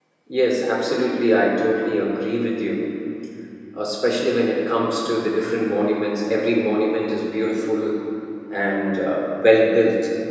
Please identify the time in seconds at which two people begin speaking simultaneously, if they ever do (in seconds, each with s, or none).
none